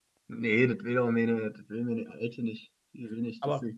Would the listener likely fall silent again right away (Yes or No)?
Yes